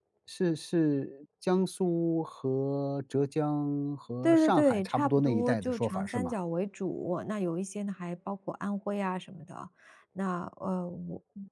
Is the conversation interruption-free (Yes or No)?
No